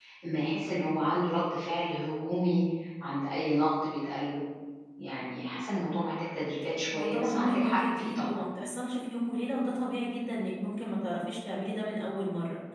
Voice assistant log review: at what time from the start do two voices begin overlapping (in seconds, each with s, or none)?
6.9 s